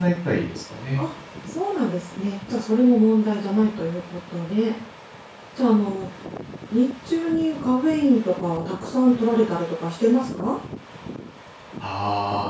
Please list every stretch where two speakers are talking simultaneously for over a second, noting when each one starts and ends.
none

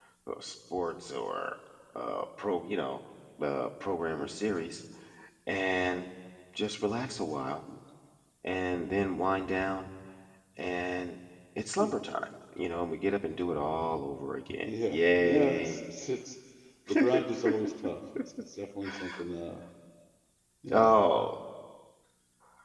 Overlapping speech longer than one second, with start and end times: 14.6-15.9

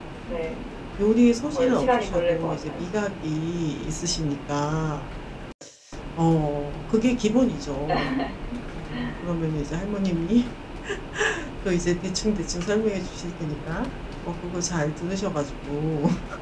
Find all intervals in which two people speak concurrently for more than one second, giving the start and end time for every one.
1.4-2.9

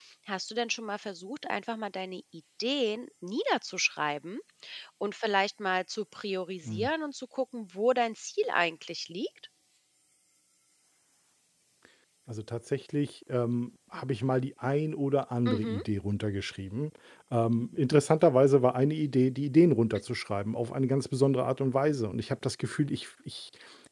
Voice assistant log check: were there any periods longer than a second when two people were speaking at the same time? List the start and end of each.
none

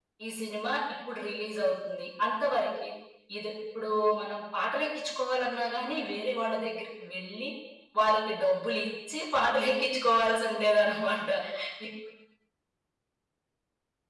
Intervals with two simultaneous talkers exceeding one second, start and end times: none

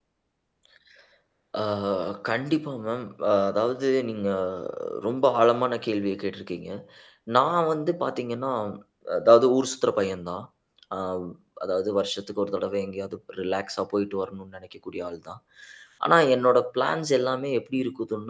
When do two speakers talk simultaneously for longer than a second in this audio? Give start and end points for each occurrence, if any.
none

